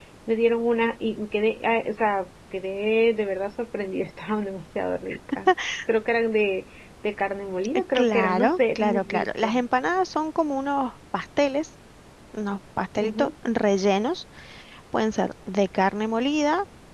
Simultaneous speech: Yes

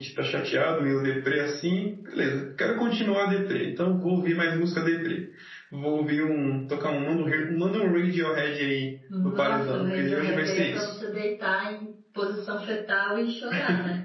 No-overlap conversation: No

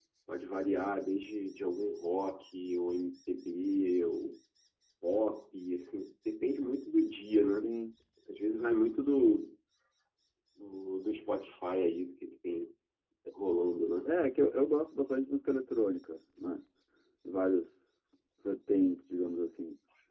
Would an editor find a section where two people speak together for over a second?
No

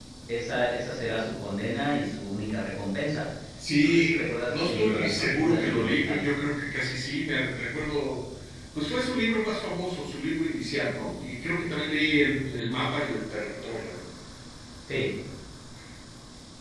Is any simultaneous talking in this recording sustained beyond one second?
Yes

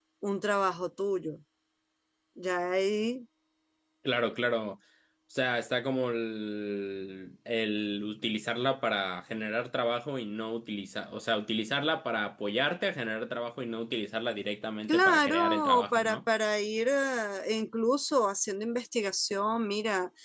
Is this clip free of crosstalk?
No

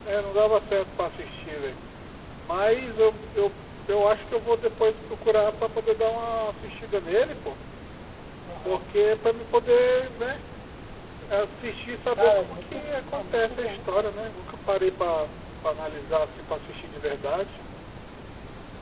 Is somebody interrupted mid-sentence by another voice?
Yes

